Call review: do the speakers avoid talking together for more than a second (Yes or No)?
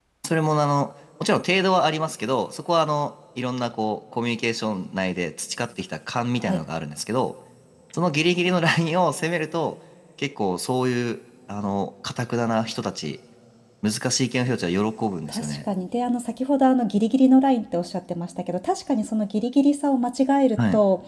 Yes